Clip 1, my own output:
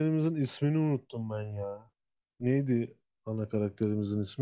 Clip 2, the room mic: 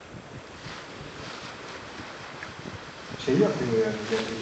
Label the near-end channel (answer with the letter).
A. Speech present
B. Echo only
A